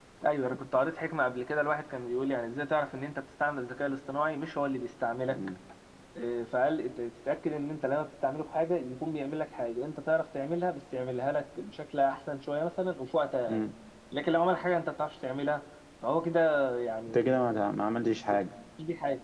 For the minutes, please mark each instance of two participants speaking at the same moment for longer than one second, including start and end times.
none

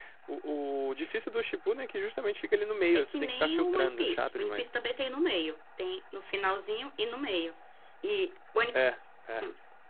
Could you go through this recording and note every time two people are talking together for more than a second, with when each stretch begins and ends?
2.9-4.7

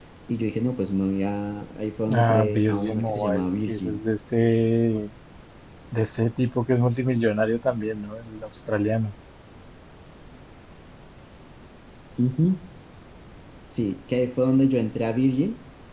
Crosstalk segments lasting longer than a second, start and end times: 2.1-4.0

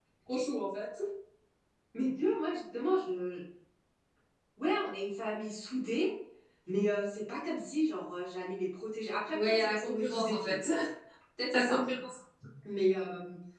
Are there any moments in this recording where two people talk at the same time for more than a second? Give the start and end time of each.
9.3-10.6

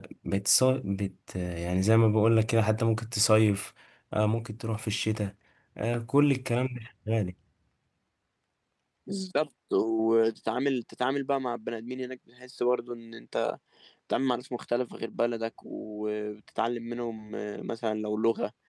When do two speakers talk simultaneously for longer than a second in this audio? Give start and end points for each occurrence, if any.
none

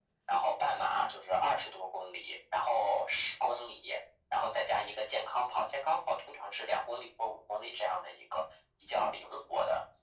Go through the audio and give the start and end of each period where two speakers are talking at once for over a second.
none

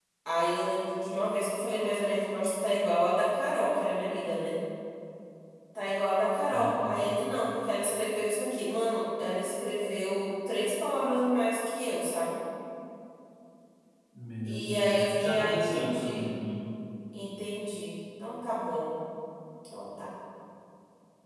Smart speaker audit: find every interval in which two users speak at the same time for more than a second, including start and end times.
14.4-16.3

